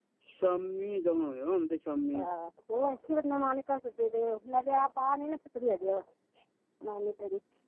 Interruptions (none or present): none